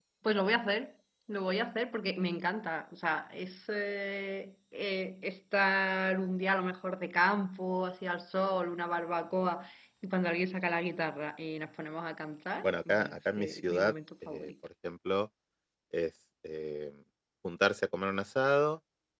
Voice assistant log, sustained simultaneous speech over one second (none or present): present